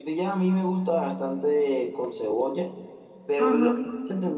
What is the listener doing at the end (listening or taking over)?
listening